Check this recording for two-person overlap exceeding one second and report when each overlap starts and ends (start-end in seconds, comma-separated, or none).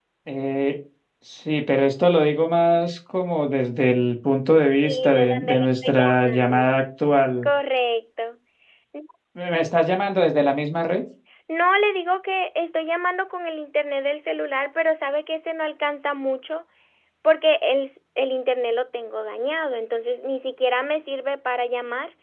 4.7-6.7